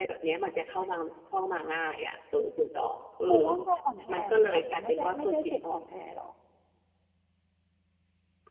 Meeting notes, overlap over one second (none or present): present